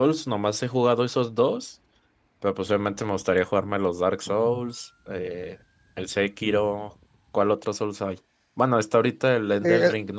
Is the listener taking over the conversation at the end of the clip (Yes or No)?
Yes